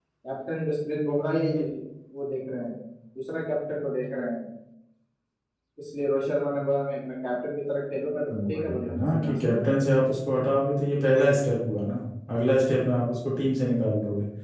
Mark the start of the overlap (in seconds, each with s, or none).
8.3 s